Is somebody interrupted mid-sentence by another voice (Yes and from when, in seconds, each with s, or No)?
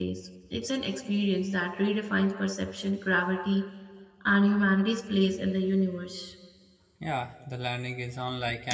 No